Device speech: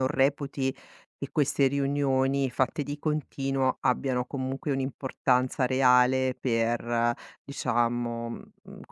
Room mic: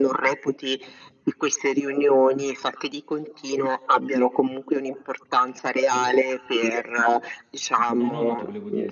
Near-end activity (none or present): present